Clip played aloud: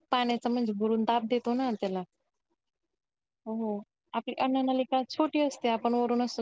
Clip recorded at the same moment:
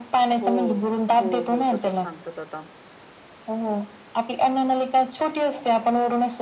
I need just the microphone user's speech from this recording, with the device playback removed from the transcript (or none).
हो हो हो तसंच सांगतात आता.